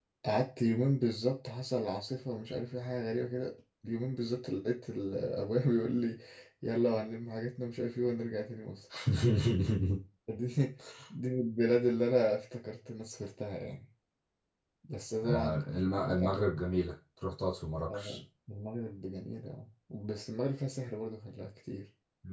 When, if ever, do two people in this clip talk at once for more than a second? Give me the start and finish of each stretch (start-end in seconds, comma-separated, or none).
15.2-16.6